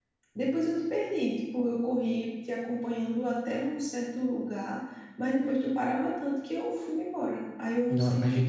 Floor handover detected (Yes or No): Yes